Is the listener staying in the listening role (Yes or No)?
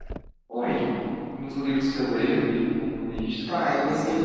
No